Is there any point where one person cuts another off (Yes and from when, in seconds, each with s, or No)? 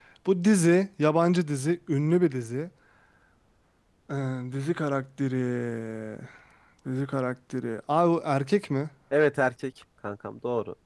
No